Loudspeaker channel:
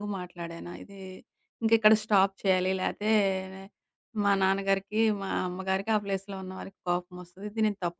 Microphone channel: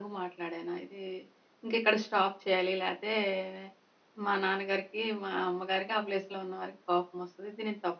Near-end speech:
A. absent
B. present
A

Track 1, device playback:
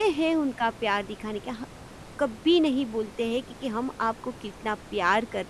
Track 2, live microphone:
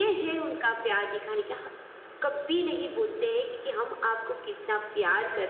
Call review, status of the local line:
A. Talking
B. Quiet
B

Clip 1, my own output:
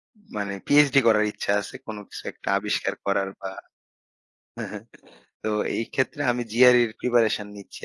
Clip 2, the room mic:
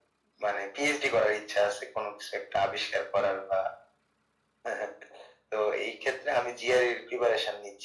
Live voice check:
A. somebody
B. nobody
B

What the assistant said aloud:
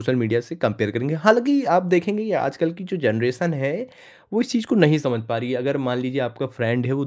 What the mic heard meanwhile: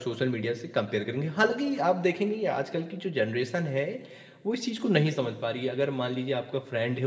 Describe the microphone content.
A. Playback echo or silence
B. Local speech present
A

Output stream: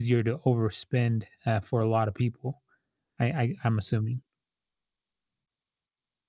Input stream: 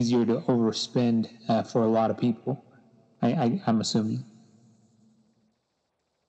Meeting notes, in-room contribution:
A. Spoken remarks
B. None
B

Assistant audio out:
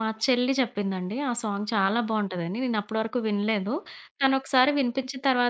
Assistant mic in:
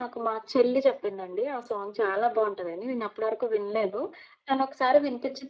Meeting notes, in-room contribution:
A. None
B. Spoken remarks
A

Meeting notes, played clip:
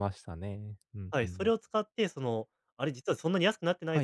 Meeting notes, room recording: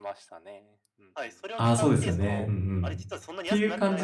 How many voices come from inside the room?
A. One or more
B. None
A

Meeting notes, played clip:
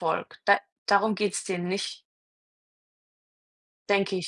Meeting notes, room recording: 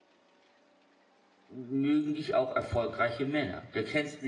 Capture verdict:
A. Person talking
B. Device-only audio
A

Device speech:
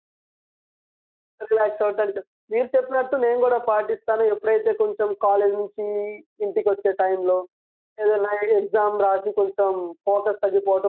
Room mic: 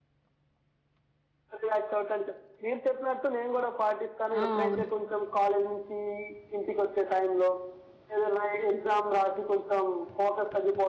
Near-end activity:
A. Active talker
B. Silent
A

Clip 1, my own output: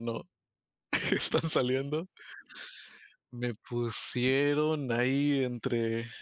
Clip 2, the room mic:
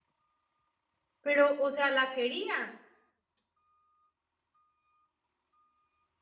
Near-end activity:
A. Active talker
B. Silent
A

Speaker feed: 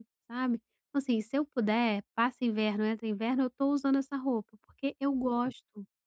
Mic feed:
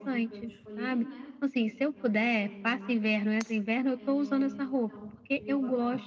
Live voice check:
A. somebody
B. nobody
A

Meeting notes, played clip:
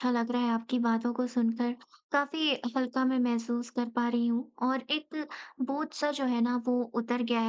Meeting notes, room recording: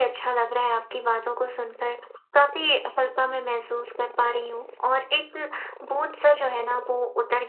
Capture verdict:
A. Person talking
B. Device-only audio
B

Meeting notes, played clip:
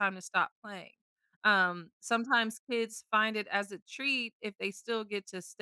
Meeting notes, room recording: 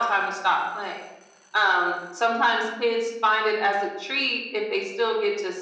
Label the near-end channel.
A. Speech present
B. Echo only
B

